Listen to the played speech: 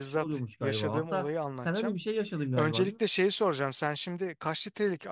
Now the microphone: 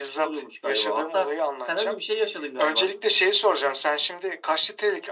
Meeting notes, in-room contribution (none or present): none